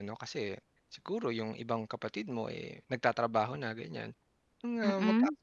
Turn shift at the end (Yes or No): No